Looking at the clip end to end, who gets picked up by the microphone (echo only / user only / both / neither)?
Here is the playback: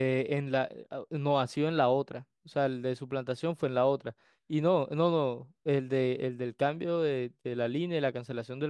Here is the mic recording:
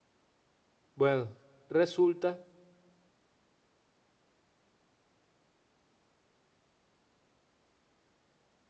user only